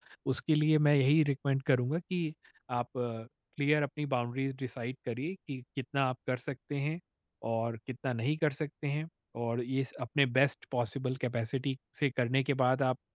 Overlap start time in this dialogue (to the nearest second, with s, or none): none